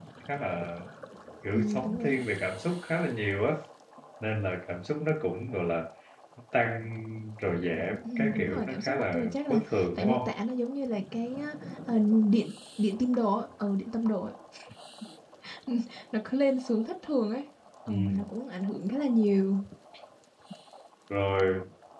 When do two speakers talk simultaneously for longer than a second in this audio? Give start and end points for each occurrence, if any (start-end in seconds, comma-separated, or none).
8.2-10.3